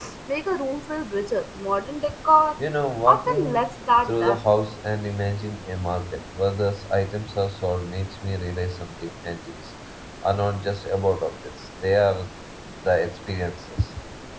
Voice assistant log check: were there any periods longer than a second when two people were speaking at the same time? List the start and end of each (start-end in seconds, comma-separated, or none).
3.1-4.4